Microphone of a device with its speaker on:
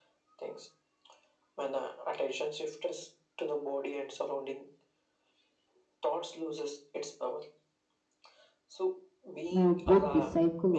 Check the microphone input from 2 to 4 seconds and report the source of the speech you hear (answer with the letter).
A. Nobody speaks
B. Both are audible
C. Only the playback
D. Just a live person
C